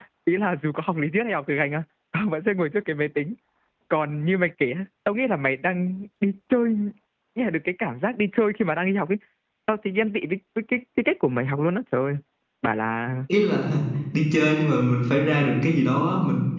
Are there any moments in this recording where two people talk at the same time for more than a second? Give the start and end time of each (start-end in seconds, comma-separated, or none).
none